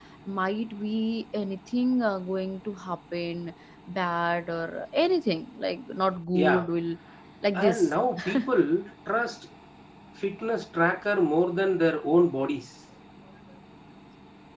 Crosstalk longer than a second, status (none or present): none